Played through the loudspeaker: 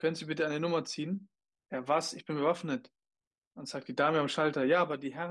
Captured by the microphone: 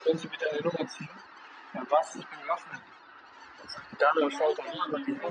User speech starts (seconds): 4.2 s

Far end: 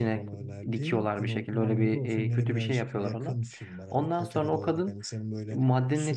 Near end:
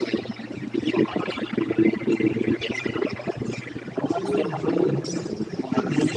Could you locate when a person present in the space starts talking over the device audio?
4.0 s

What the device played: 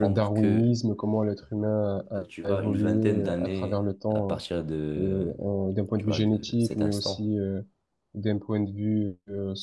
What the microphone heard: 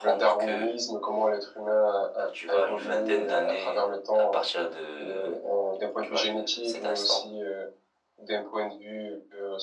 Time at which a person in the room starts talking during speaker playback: none

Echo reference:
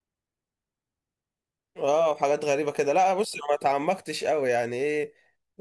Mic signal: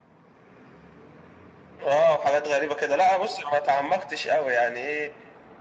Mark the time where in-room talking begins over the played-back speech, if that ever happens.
none

